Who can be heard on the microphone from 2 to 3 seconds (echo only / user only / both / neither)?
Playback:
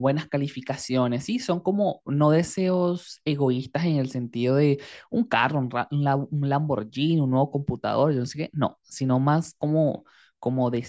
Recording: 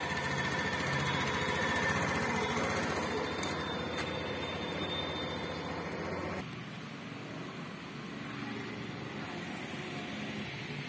neither